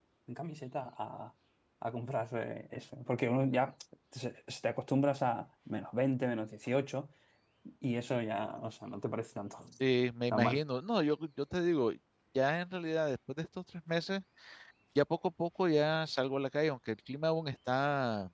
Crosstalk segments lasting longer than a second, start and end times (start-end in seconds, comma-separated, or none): none